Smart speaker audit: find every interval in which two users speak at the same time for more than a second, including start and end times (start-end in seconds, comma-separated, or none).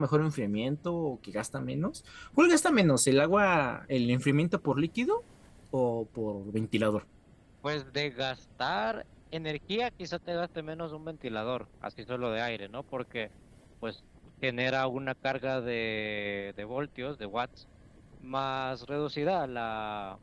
none